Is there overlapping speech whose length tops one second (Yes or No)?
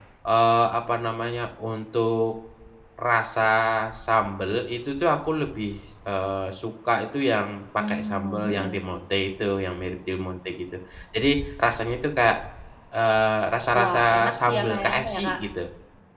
Yes